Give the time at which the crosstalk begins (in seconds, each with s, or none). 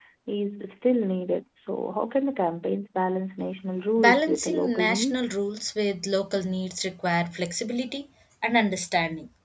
4.0 s